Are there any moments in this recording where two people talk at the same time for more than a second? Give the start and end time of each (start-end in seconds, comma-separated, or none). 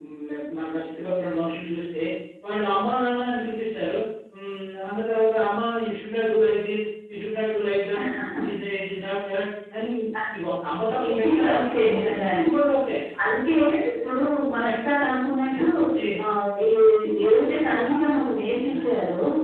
11.1-12.4